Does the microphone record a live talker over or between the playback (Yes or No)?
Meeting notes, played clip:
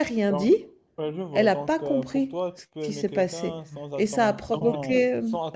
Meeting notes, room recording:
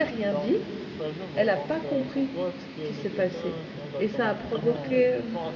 No